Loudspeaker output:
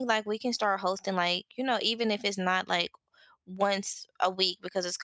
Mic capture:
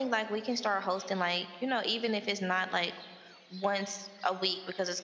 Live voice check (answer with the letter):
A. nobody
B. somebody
A